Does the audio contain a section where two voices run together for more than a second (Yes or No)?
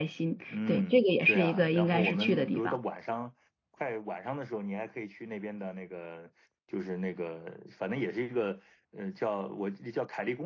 Yes